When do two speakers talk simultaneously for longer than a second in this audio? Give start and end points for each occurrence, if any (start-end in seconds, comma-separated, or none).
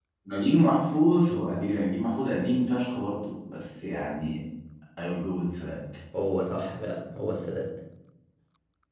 none